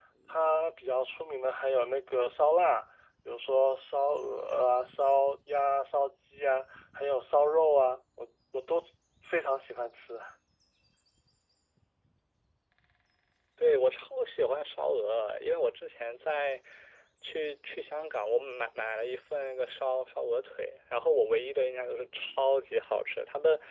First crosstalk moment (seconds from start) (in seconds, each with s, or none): none